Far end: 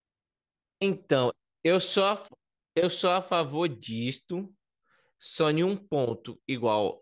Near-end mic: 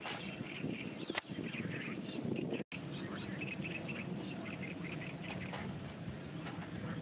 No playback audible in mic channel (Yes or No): Yes